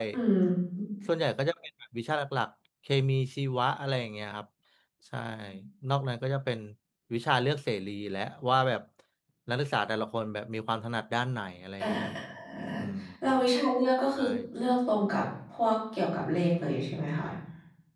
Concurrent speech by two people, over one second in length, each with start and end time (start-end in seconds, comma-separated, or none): none